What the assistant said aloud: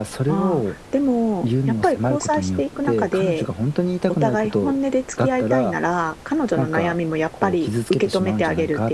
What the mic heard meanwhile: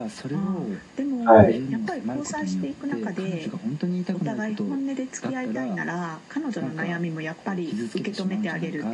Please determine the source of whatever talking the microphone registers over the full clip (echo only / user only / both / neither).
both